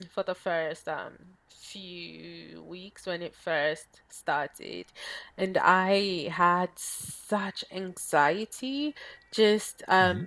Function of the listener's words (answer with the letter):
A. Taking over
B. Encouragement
B